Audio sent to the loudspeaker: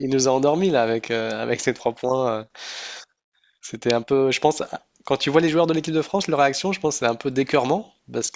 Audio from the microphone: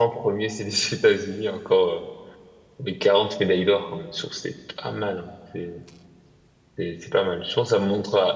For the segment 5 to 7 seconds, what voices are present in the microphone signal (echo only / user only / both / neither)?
user only